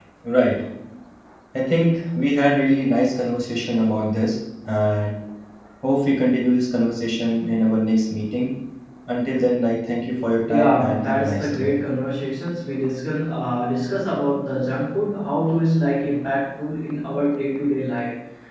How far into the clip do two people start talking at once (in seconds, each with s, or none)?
10.5 s